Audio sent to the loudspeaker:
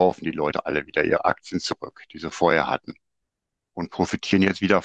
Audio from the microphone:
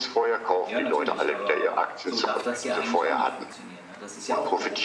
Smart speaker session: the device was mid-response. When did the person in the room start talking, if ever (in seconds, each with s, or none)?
0.6 s